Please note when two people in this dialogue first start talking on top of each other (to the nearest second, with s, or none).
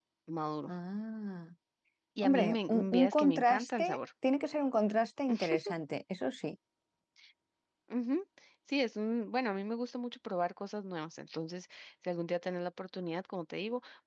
2 s